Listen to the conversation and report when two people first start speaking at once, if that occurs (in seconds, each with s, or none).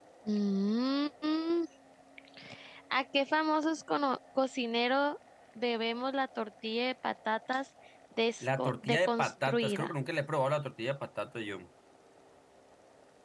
8.4 s